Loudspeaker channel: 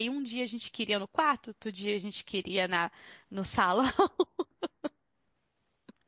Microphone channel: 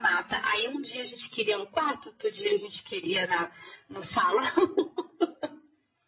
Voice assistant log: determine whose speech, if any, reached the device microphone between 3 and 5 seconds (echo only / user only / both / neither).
echo only